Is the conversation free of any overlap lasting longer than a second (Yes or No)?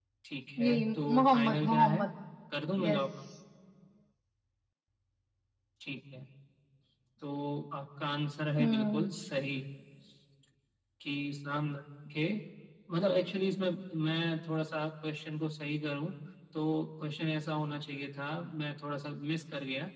No